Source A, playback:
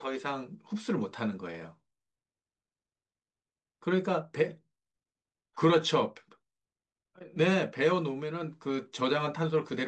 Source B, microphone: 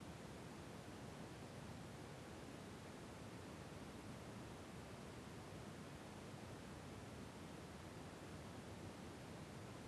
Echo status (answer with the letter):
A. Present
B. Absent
B